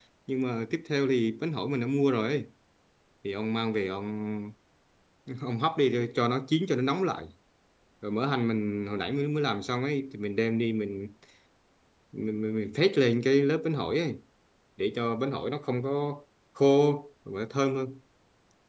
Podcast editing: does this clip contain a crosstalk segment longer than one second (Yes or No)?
No